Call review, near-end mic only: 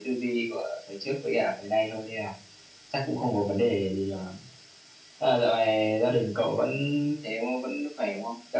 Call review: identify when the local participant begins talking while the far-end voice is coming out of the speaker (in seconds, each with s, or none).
none